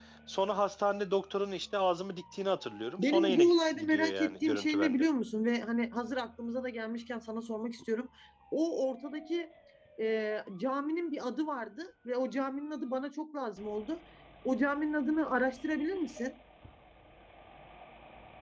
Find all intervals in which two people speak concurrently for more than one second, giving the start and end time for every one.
3.0-5.1

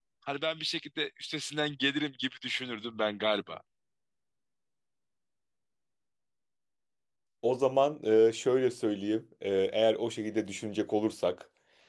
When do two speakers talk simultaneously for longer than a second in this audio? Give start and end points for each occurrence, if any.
none

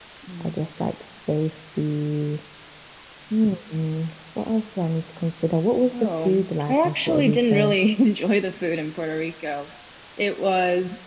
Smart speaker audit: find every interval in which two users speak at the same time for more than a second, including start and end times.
5.9-7.8

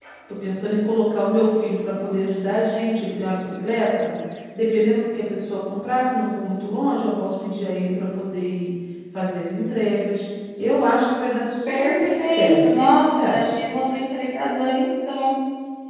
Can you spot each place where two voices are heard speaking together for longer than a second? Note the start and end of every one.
11.7-13.6

